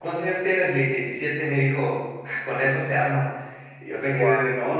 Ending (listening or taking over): listening